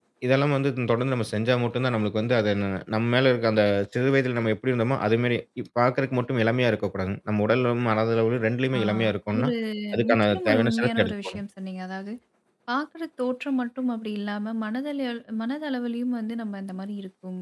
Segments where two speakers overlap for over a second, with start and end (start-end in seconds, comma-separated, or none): 10.1-11.4